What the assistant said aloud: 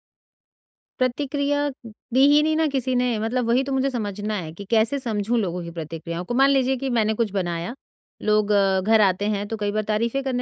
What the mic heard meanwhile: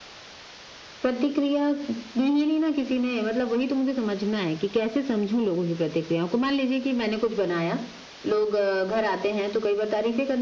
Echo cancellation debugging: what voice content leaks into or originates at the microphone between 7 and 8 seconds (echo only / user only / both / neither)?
echo only